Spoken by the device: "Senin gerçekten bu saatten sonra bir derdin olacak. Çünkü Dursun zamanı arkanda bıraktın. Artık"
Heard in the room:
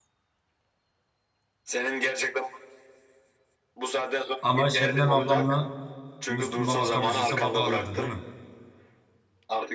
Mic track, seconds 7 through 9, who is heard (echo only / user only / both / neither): both